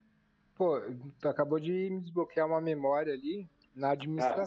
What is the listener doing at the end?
listening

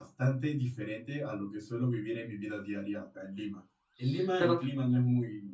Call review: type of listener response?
listening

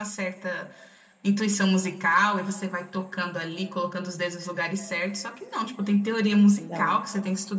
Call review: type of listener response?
listening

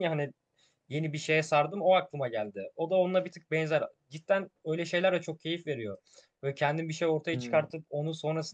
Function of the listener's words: listening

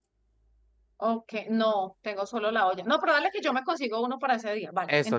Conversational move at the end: taking over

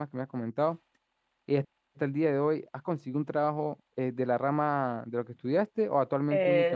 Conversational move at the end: taking over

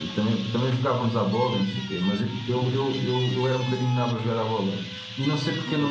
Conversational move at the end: listening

